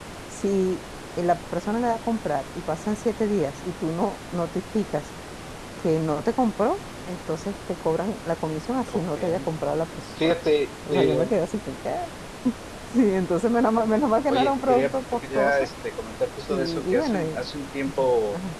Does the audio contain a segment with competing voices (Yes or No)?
Yes